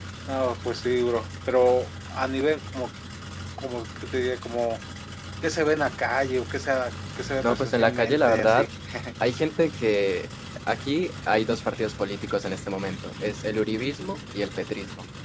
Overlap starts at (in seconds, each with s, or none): 7.4 s